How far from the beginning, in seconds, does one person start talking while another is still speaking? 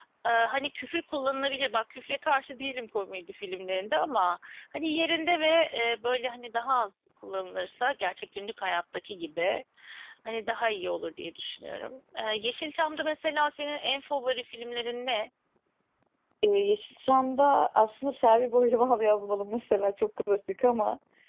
none

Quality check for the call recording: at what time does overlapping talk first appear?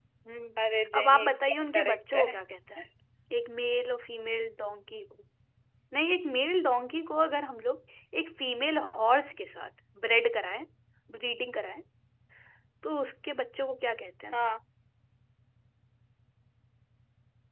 1 s

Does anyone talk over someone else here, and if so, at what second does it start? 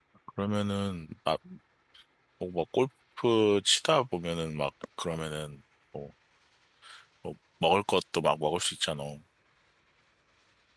none

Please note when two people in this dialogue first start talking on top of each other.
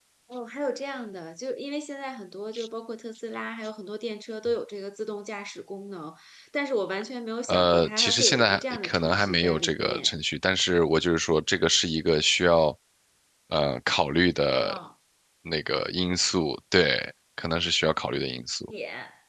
7 s

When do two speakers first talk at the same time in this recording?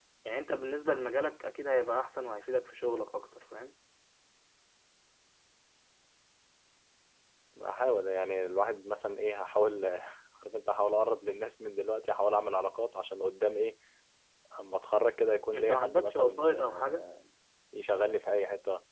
16 s

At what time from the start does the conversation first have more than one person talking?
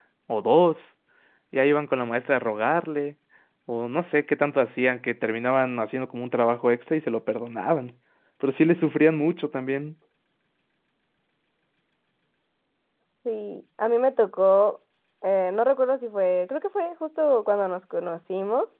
none

